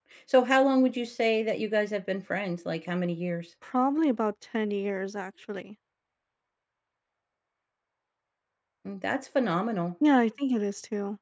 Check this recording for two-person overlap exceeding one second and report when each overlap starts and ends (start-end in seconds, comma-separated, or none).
none